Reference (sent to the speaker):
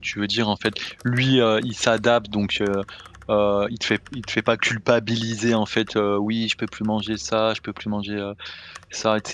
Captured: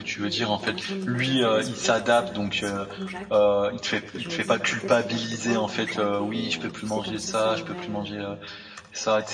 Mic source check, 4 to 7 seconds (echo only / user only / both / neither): both